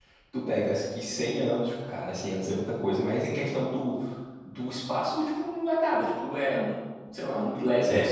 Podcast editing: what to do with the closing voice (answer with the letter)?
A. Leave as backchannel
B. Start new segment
B